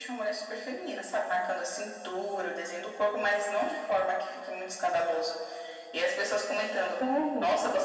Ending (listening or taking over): listening